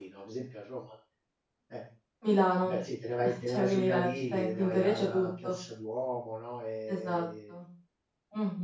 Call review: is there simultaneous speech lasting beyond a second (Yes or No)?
Yes